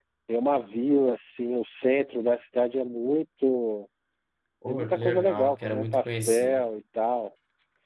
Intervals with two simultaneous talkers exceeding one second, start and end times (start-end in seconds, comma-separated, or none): 4.7-6.7